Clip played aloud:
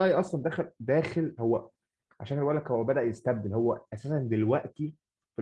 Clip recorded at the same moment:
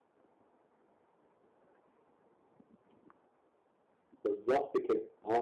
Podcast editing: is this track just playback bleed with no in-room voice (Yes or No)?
No